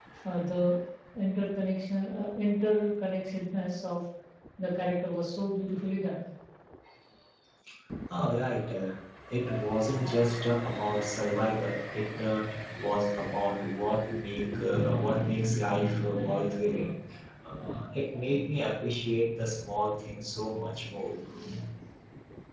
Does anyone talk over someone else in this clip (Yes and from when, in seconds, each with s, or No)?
No